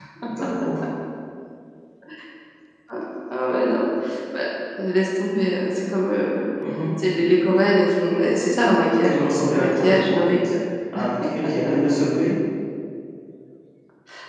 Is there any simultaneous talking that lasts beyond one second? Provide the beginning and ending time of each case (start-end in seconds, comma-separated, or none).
9.0-10.4